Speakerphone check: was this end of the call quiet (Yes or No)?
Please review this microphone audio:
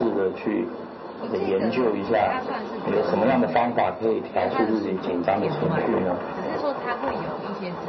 No